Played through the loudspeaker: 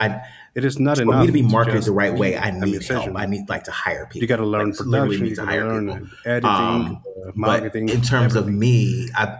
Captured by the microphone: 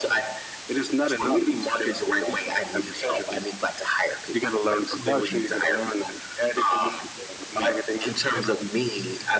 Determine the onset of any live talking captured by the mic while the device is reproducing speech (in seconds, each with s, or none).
none